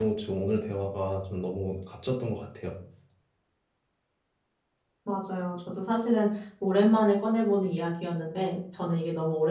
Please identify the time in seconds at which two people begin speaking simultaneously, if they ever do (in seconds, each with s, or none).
none